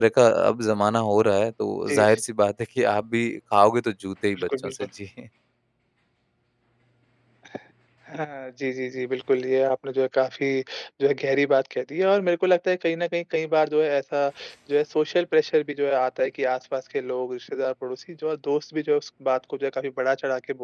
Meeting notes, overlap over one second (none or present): none